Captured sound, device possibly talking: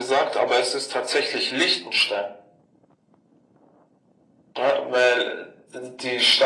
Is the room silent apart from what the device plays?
Yes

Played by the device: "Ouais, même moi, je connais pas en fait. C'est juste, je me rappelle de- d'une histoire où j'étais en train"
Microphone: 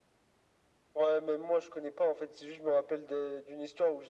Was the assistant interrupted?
No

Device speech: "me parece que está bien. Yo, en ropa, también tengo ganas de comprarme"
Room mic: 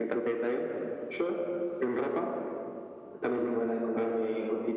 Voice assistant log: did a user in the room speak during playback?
No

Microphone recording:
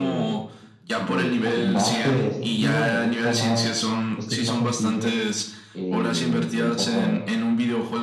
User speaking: Yes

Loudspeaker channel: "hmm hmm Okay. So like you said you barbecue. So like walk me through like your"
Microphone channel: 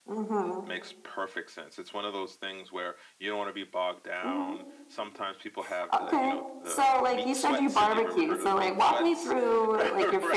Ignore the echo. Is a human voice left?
Yes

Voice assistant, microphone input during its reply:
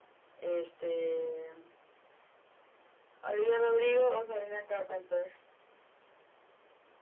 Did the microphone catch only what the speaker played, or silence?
Yes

